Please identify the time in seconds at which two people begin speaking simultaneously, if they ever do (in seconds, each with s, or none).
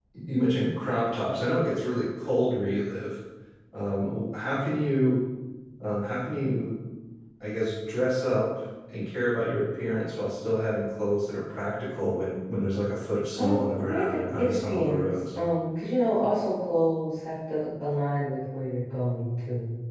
13.4 s